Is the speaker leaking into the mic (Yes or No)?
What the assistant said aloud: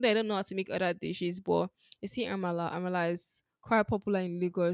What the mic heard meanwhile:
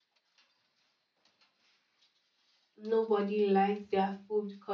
No